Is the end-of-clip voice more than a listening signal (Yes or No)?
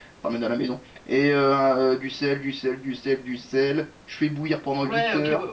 Yes